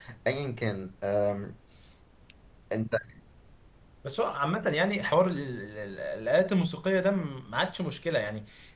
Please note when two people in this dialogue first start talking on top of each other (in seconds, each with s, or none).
none